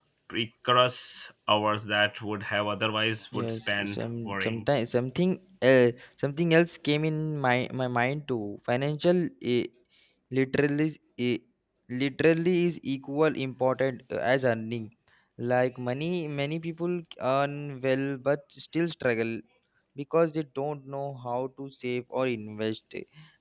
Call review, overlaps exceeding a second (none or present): present